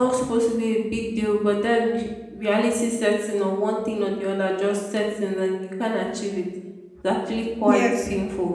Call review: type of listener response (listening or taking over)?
listening